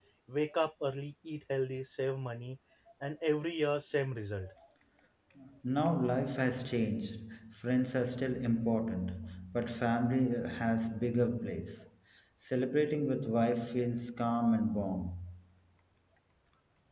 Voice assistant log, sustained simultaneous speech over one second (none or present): none